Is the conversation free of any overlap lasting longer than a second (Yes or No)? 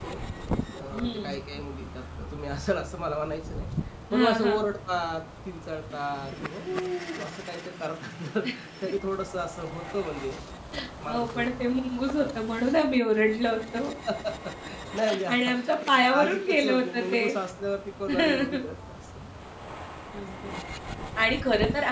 No